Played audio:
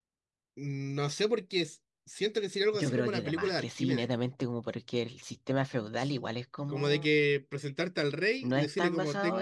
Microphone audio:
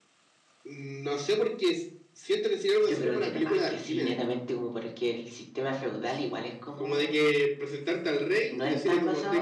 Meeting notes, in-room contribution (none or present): none